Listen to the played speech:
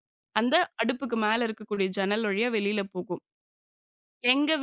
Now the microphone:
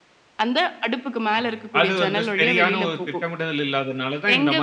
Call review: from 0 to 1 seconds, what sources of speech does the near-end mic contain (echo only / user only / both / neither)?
echo only